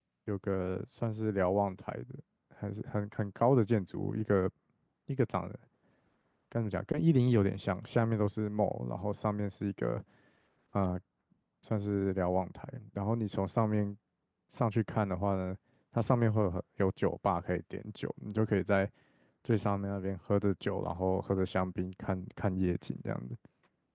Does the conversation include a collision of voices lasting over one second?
No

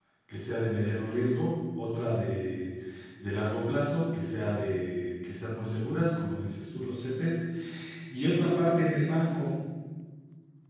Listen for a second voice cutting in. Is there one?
No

